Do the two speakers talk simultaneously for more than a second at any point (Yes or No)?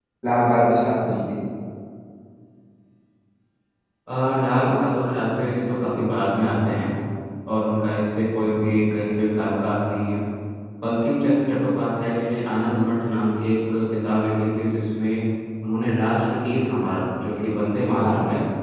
No